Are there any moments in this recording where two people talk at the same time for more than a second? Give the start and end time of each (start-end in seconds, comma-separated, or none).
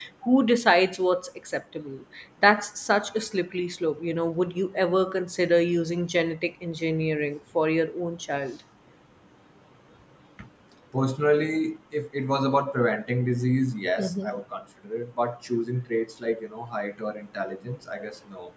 none